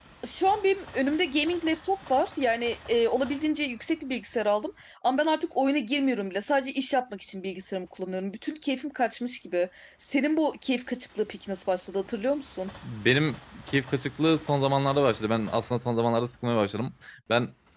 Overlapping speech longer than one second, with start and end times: none

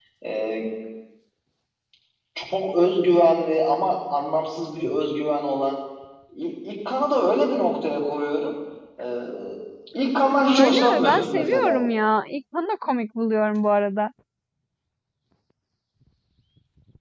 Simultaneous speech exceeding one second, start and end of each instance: 10.6-11.8

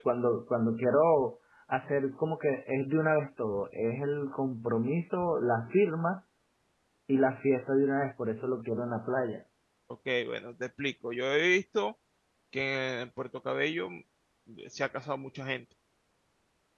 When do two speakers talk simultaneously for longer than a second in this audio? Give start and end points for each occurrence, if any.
none

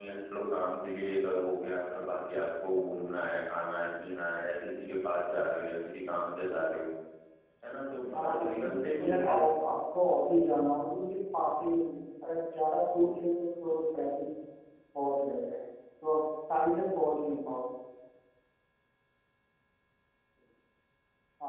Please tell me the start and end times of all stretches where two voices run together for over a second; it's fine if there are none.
8.1-9.4

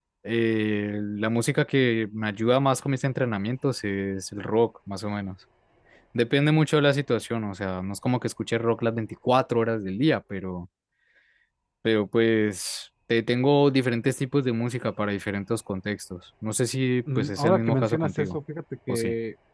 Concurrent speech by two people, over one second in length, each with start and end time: 17.2-18.4

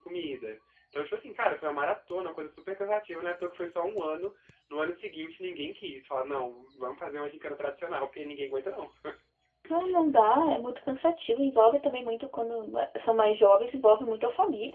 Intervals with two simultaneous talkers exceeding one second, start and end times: none

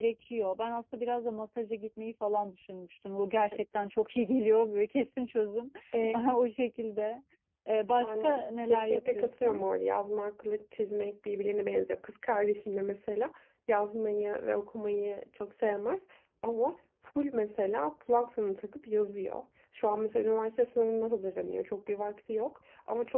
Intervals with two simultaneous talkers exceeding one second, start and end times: 8.0-9.6

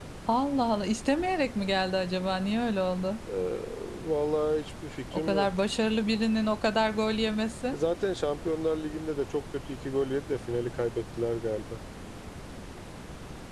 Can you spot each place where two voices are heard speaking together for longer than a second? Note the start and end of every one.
none

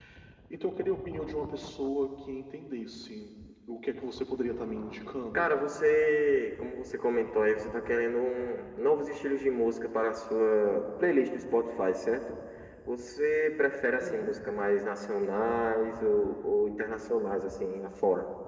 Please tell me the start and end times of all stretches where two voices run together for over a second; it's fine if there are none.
none

